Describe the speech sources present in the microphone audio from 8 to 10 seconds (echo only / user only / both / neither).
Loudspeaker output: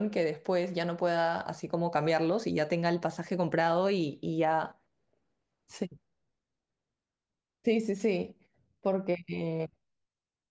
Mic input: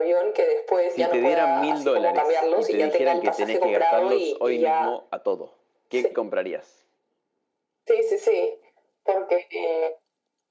echo only